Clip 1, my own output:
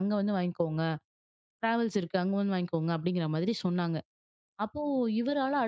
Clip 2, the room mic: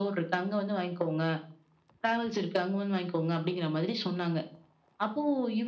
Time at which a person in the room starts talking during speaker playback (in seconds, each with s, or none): none